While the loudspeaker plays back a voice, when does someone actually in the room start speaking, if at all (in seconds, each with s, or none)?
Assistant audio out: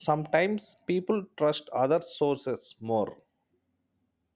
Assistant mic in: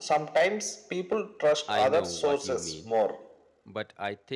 1.7 s